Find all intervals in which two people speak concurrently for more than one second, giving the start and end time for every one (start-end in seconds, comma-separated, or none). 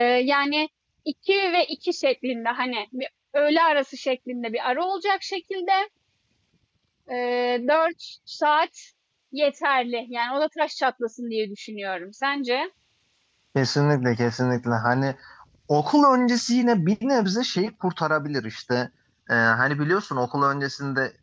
none